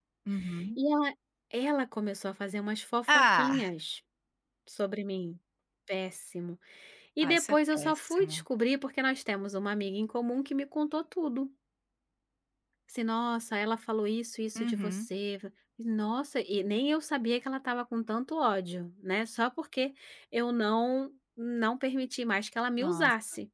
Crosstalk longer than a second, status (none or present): present